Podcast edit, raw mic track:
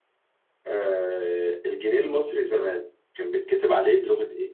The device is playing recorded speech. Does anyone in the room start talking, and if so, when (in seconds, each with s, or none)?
0.7 s